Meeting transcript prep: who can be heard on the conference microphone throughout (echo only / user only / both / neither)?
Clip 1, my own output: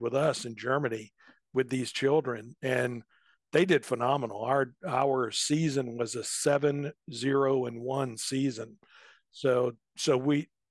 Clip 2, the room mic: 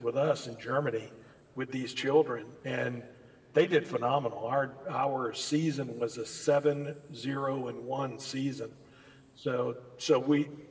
echo only